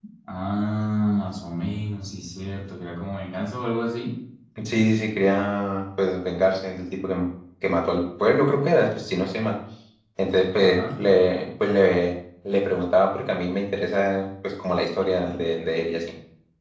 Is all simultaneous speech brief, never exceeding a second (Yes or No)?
Yes